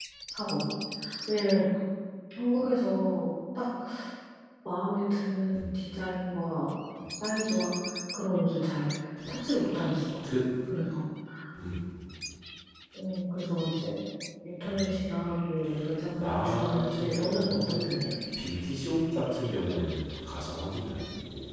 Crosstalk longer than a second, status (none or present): present